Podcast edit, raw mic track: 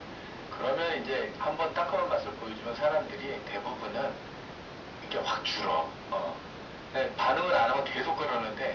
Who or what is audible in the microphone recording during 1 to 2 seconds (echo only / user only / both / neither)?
echo only